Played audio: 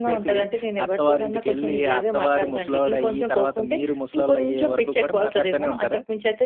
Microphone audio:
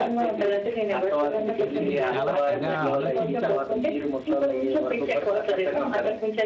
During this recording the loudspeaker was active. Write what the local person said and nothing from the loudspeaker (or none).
అంటే మీరు చాలా తెగ ఆలోచించేసి,